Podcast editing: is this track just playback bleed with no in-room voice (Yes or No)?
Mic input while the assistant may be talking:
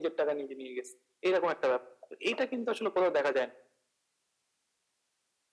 Yes